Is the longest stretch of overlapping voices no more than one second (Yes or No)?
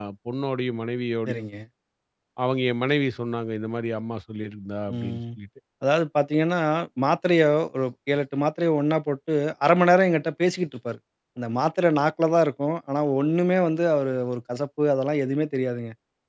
Yes